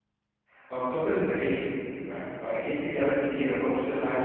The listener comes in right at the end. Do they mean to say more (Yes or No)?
Yes